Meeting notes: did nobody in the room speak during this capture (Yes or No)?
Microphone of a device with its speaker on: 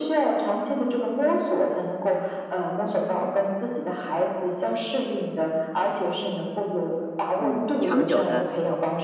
No